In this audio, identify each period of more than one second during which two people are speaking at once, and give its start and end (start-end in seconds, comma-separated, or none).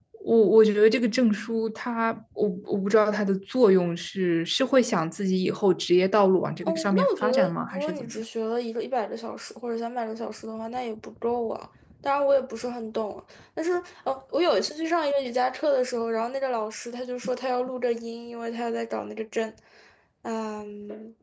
6.6-8.2